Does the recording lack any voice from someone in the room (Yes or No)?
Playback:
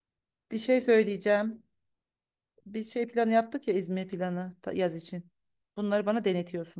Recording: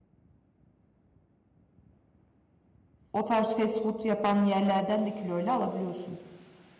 No